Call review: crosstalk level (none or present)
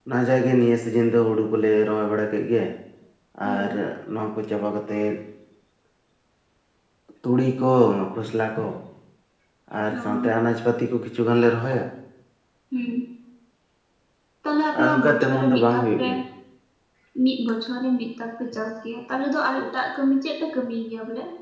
present